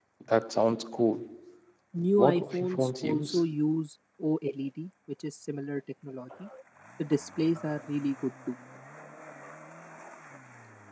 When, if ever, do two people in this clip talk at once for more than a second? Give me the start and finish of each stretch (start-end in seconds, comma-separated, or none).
2.2-3.4